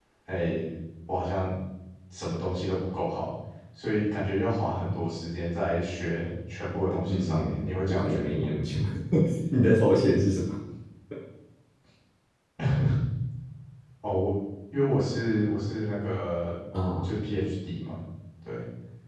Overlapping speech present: Yes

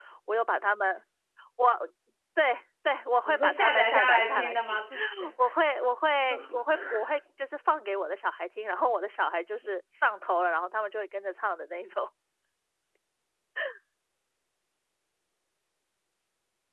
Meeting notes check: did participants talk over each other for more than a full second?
Yes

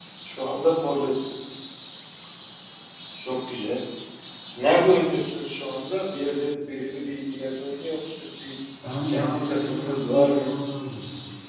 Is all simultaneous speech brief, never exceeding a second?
No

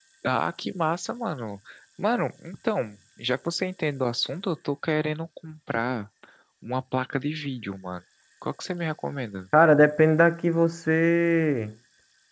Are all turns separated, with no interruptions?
Yes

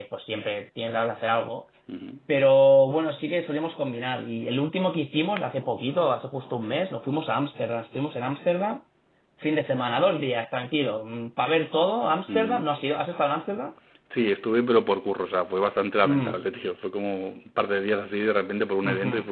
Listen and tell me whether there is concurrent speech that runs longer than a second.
No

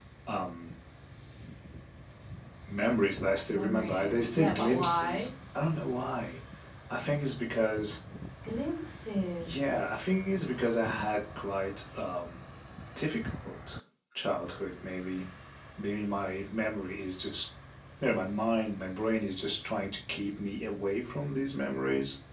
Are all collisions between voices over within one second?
No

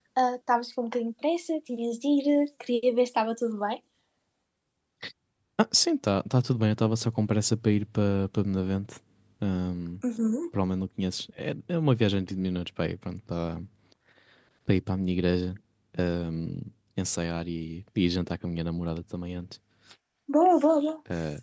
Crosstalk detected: No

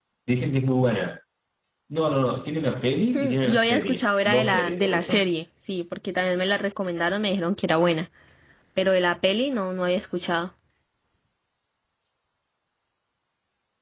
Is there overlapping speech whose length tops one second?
Yes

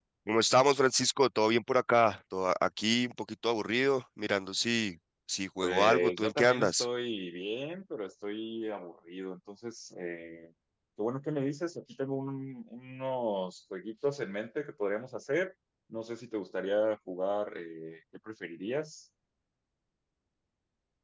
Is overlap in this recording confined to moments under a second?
No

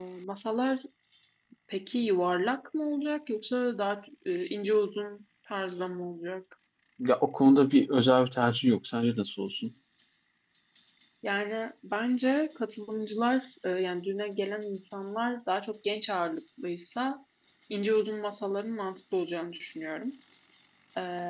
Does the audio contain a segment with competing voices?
No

